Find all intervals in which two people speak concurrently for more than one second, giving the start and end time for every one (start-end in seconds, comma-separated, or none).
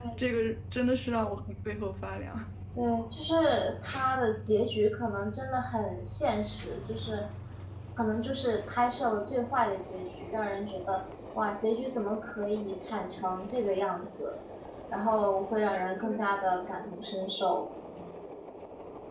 none